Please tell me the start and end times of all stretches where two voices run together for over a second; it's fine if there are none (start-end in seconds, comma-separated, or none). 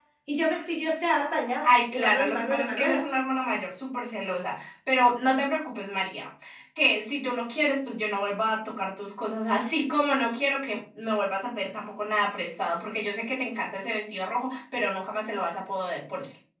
1.6-3.1